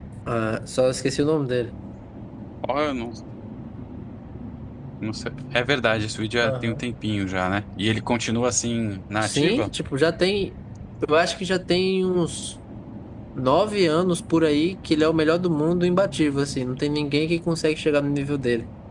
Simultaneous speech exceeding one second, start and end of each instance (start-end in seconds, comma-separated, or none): none